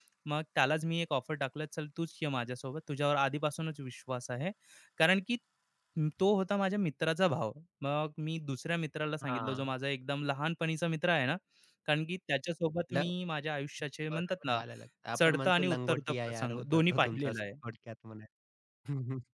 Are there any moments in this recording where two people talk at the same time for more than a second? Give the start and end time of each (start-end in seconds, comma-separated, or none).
15.2-17.4